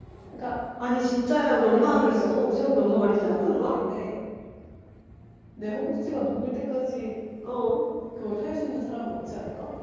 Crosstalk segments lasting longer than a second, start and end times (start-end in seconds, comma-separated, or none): 1.5-3.7